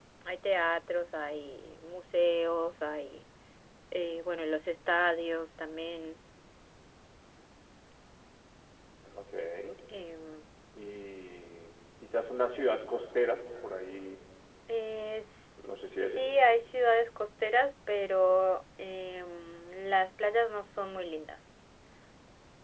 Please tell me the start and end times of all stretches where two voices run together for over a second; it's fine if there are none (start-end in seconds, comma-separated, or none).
none